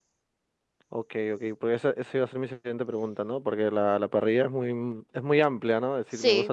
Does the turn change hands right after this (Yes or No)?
Yes